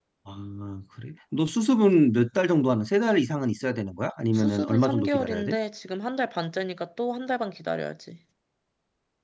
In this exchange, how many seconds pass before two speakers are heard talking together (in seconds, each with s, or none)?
4.3 s